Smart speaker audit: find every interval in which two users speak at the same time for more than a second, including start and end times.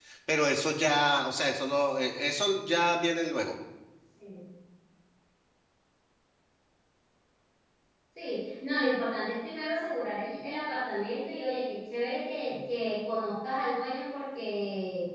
none

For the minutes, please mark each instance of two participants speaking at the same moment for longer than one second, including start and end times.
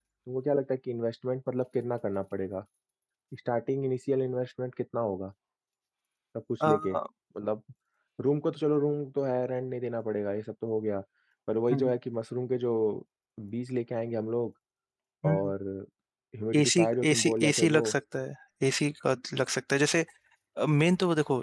16.6-17.9

